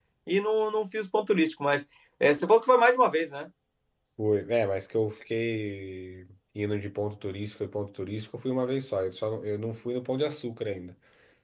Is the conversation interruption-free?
Yes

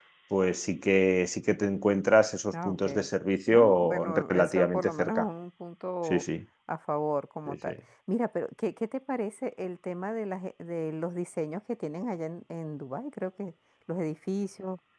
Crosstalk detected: Yes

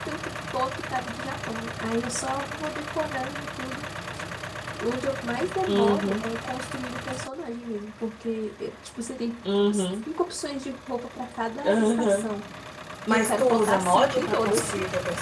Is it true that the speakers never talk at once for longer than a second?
No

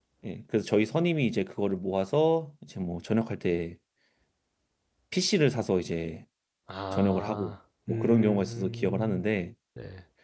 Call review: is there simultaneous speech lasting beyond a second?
Yes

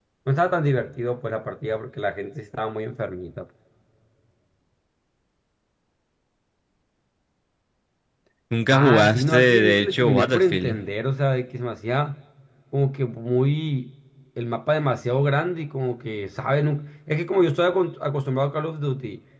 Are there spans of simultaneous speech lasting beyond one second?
Yes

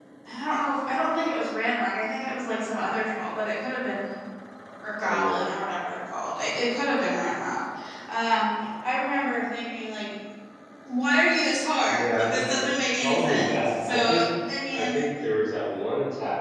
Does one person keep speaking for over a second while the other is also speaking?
Yes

